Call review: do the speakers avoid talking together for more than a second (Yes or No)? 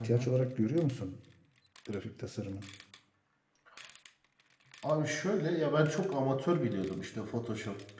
Yes